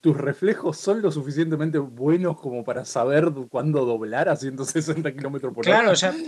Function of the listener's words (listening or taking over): taking over